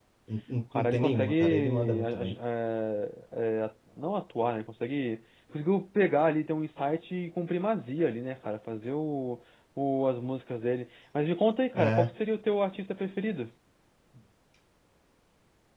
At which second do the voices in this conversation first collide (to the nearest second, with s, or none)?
1 s